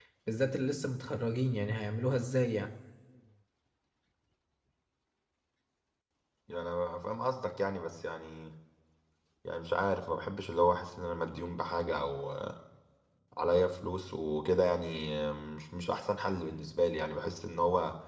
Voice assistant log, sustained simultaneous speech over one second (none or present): none